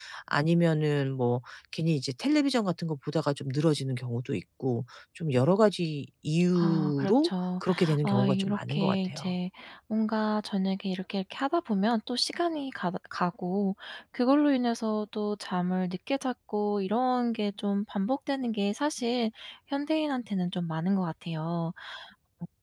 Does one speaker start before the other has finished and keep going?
Yes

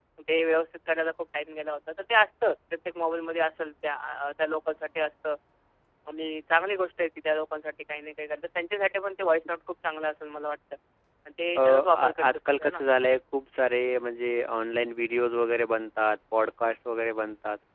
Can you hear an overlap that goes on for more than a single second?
Yes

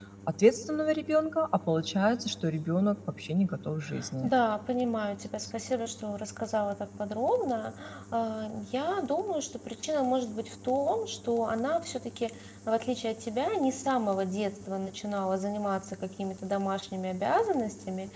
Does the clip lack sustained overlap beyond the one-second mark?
Yes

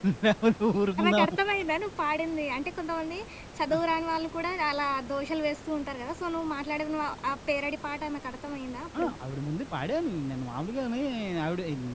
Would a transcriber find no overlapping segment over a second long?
Yes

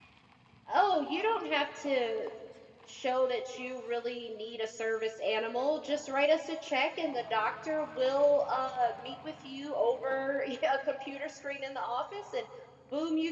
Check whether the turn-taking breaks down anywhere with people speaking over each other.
No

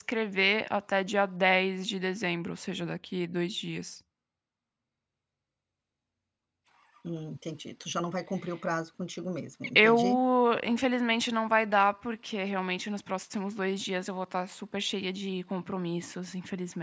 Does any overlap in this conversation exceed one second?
No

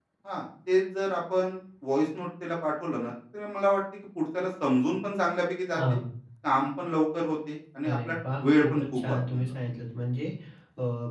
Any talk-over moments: Yes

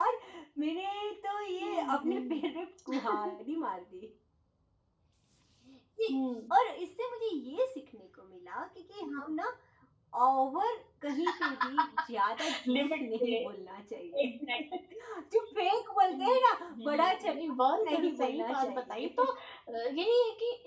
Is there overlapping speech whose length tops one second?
Yes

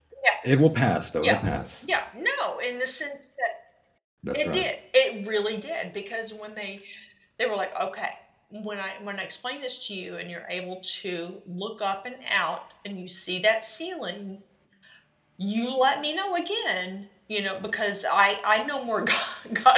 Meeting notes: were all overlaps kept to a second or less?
Yes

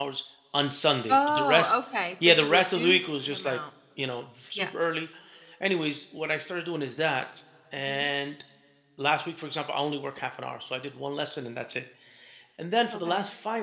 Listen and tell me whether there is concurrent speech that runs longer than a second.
Yes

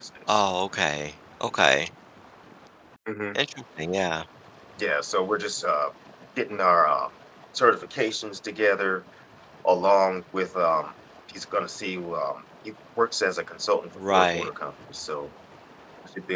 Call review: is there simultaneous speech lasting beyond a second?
No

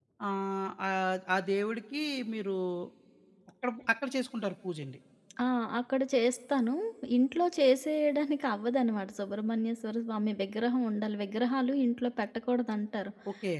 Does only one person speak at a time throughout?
Yes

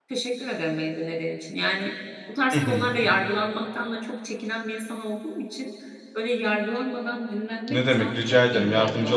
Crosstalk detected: Yes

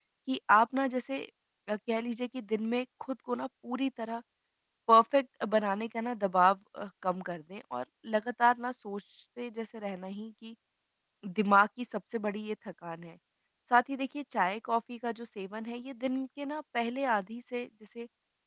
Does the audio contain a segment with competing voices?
No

